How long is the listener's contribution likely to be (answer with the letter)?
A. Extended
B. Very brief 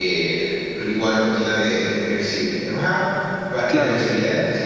B